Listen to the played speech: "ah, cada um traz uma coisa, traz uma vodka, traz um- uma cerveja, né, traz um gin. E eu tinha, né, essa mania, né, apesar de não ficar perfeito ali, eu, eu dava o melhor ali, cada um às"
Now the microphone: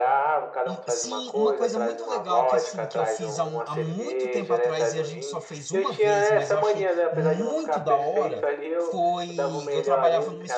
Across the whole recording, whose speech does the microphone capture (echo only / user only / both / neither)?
both